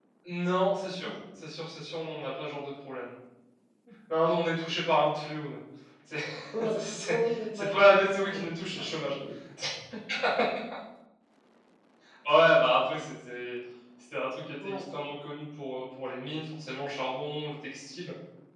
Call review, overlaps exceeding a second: present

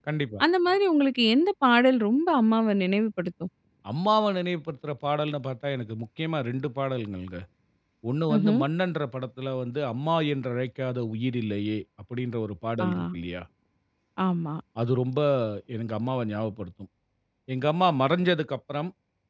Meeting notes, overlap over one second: none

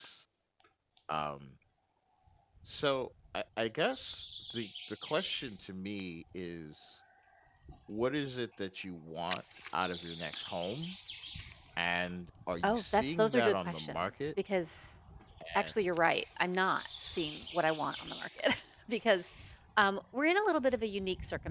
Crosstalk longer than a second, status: present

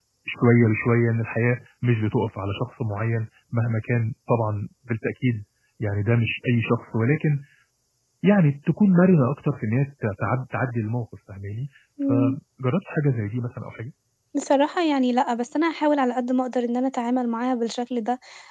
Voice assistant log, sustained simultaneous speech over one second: none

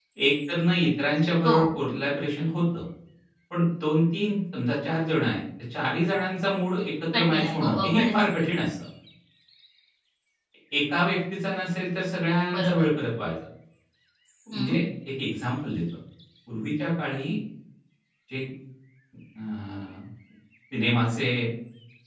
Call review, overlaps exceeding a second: present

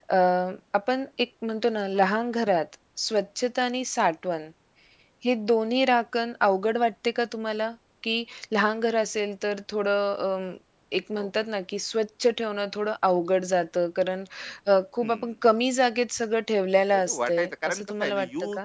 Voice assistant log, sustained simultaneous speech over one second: present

